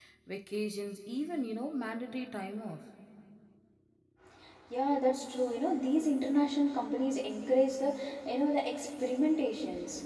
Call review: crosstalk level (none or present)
none